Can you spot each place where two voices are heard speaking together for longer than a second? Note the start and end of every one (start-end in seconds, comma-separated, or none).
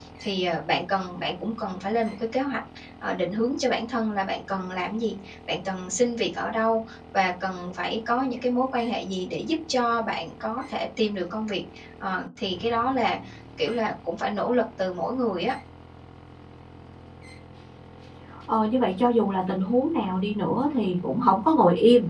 none